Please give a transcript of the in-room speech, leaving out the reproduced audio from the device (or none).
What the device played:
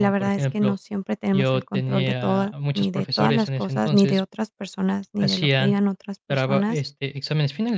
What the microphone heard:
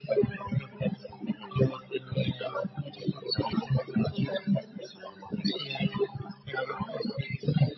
none